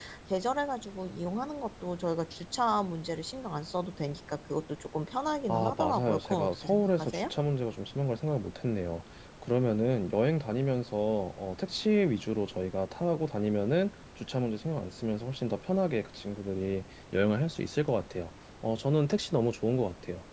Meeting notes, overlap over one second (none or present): present